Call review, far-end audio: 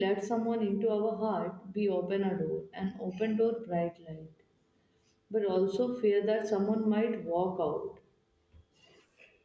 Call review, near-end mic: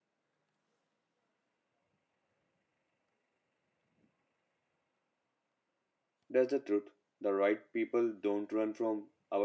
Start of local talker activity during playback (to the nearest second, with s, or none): 6 s